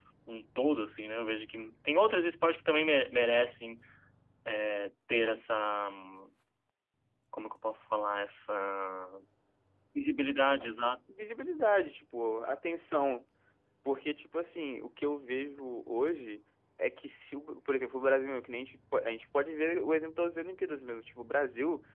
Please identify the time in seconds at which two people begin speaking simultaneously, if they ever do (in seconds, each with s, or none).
none